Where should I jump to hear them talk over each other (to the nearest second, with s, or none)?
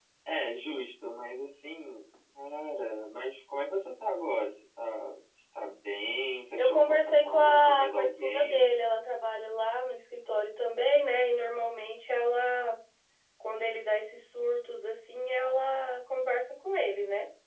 7 s